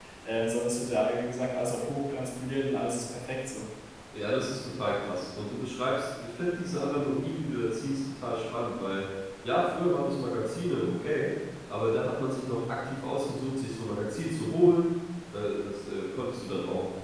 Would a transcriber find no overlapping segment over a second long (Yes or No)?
Yes